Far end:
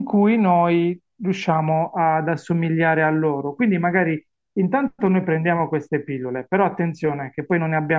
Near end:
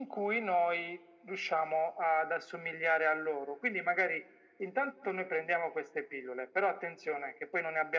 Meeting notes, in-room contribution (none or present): none